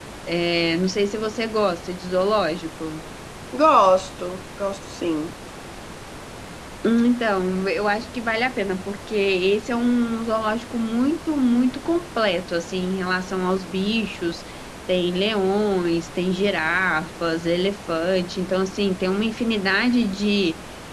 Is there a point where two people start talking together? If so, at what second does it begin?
none

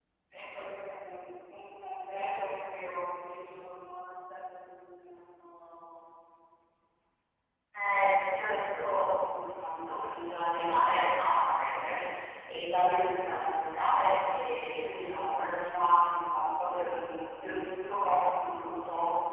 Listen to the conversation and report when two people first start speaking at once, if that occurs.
none

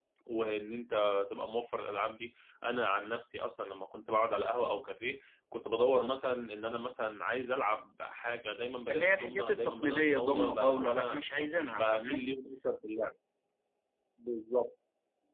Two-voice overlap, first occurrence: 8.9 s

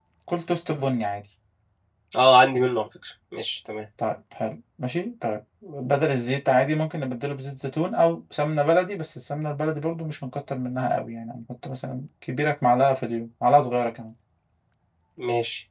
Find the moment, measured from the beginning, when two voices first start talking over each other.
none

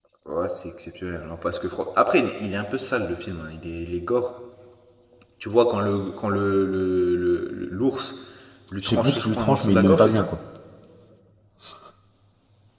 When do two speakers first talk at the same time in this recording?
8.8 s

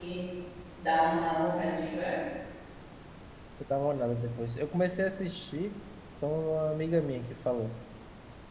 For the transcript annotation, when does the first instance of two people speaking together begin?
none

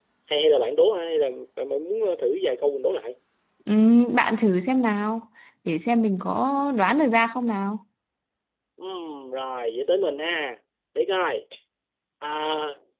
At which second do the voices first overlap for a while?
none

